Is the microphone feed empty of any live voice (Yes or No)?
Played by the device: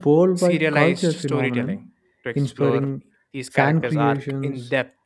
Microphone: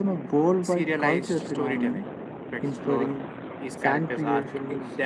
Yes